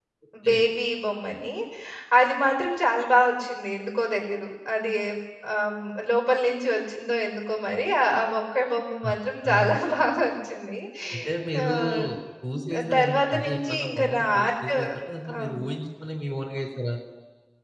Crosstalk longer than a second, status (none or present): present